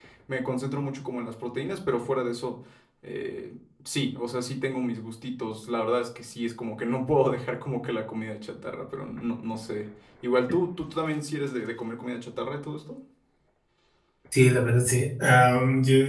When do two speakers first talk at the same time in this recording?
none

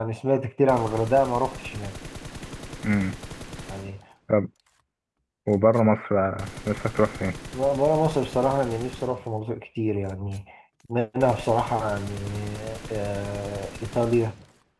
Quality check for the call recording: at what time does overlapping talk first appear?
none

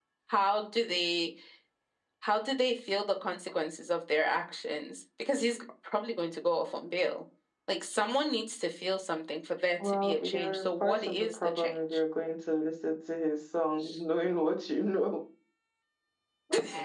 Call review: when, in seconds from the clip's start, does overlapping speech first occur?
10 s

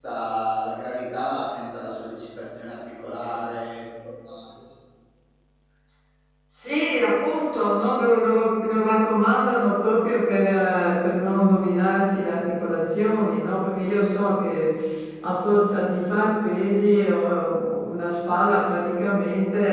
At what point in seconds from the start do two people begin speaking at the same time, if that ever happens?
none

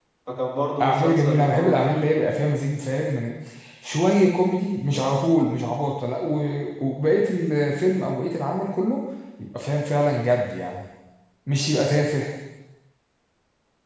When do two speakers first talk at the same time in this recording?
1 s

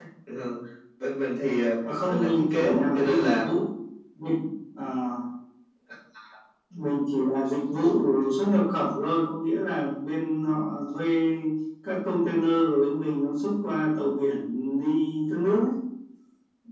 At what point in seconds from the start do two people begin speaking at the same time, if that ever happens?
2 s

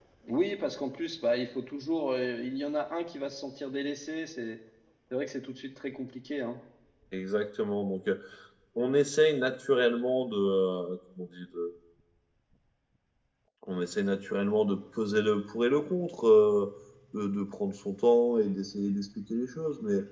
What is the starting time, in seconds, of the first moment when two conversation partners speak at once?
none

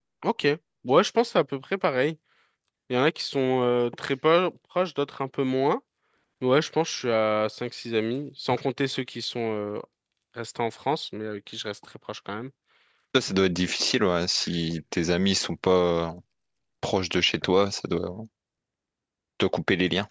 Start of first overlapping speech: none

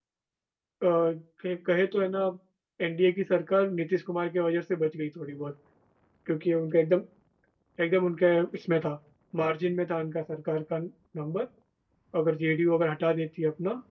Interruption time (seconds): none

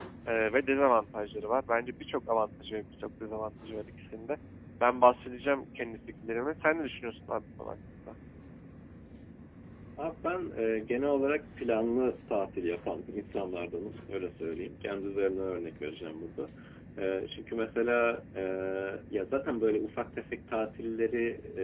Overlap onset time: none

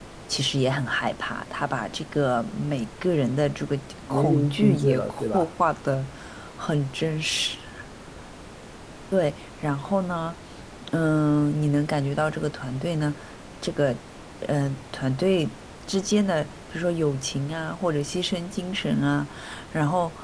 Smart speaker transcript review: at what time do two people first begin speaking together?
4 s

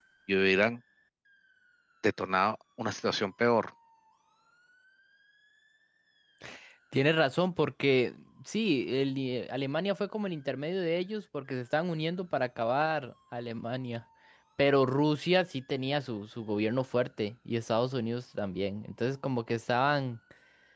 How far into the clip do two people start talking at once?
none

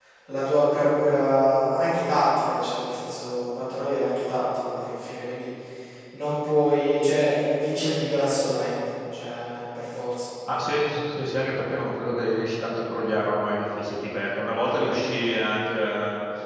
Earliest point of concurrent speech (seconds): none

